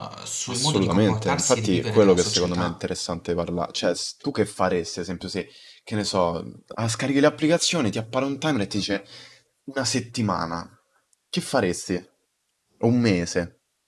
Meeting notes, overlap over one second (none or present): present